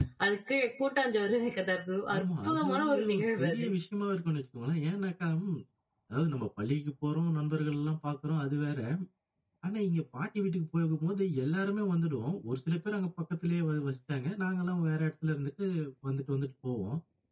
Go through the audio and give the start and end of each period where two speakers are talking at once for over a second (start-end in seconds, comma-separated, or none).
2.2-3.7